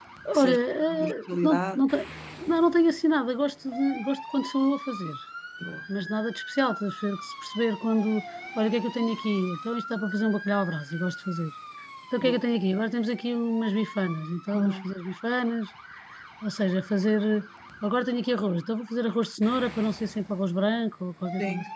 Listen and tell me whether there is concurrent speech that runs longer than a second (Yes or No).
Yes